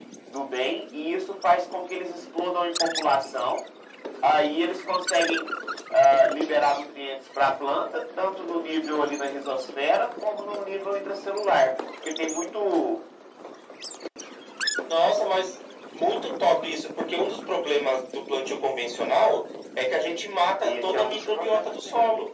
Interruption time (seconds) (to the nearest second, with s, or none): 21 s